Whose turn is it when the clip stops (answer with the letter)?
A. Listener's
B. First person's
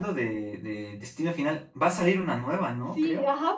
A